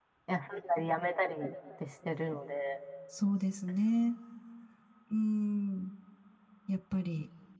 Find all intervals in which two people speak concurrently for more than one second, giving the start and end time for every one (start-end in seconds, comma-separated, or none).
none